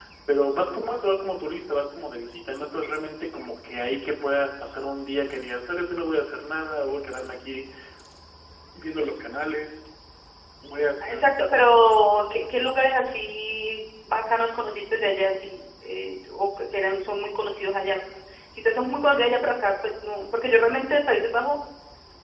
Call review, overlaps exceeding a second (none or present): none